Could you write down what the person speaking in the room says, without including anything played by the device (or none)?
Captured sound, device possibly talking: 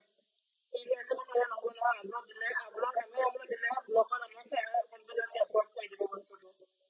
none